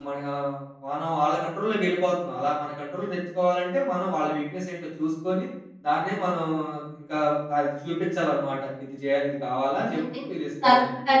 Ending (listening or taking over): taking over